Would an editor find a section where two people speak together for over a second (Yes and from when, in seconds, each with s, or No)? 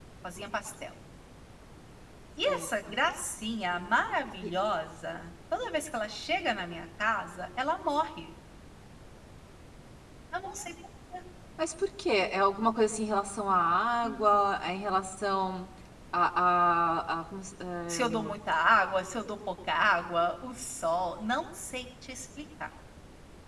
No